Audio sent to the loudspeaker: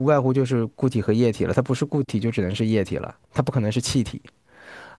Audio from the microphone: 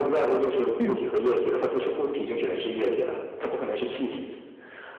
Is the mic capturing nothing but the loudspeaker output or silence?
No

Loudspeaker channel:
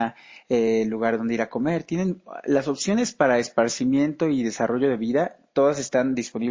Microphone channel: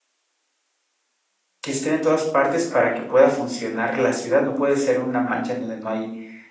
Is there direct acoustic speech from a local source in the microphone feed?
Yes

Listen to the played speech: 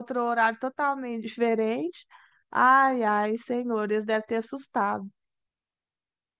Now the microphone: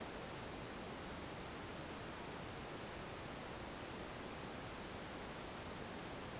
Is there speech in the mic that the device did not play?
No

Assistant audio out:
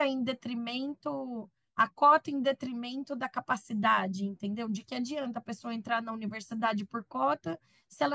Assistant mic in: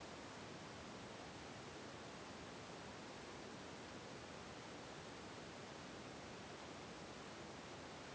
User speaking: No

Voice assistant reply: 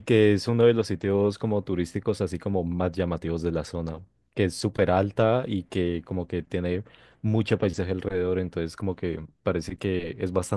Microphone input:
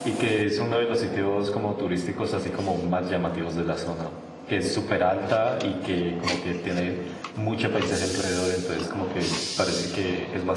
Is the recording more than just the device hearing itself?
No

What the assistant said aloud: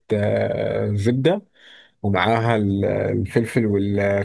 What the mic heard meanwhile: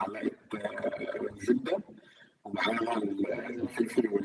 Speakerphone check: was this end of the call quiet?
No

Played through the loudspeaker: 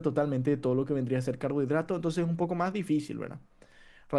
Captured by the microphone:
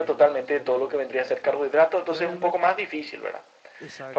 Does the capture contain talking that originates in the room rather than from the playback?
Yes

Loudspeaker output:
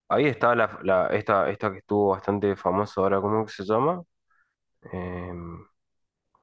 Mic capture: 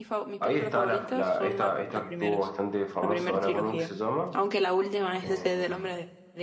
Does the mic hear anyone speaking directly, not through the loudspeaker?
Yes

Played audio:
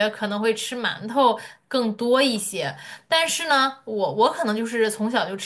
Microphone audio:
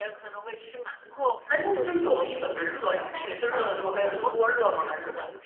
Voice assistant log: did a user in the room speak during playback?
Yes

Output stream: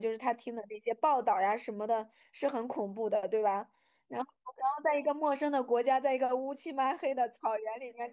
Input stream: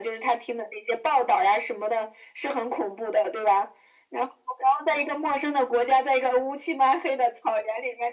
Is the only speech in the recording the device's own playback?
Yes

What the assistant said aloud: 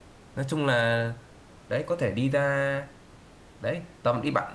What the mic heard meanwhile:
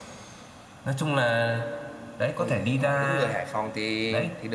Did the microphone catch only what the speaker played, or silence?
No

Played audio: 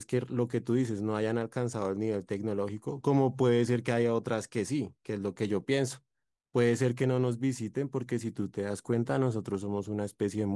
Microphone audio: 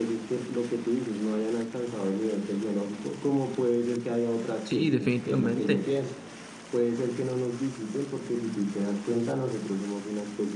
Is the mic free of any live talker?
No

